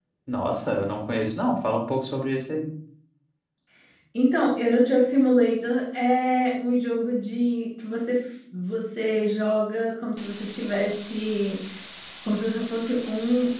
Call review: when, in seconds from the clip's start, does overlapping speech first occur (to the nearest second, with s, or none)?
none